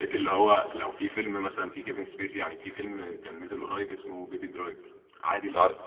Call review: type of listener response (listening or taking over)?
listening